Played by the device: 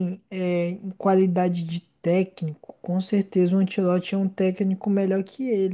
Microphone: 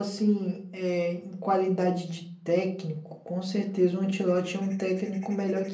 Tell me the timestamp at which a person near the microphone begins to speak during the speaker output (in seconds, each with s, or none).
none